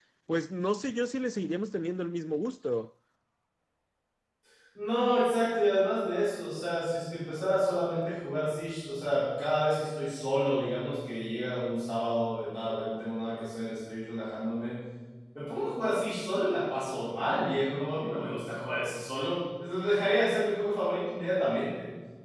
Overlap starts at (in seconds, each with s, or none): none